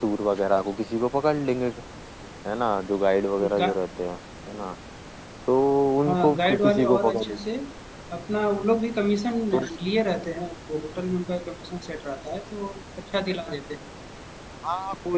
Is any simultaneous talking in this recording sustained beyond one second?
Yes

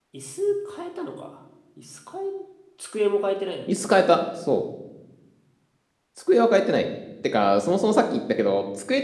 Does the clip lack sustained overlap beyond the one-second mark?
Yes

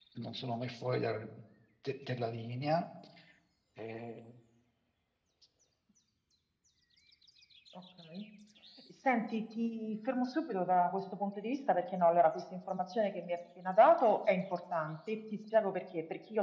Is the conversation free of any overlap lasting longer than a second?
Yes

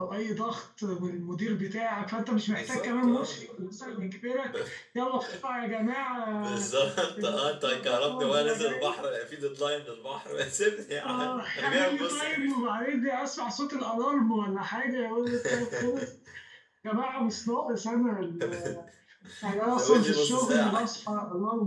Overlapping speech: Yes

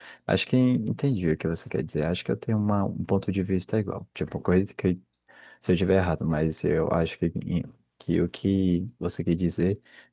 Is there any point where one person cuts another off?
No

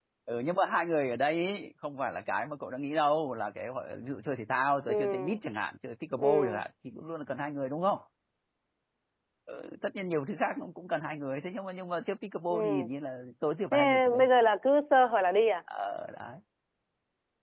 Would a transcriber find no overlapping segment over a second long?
Yes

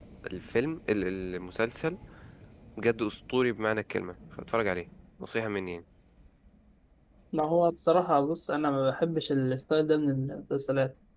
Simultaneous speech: No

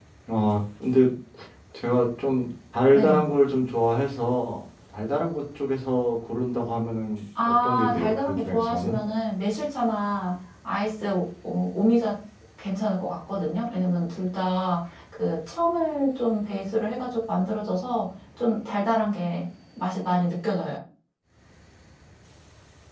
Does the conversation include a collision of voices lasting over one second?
Yes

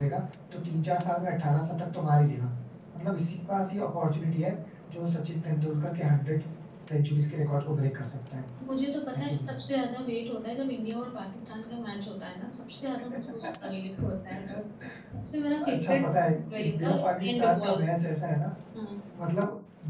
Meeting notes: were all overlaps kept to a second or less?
No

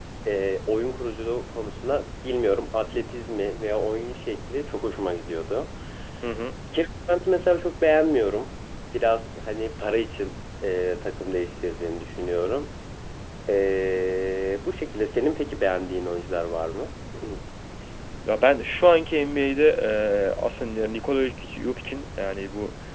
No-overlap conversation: Yes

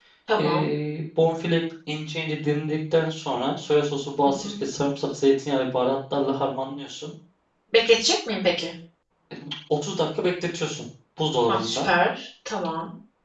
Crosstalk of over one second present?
No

